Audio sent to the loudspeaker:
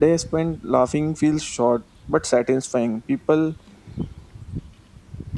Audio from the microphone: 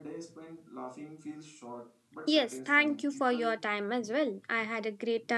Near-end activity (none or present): present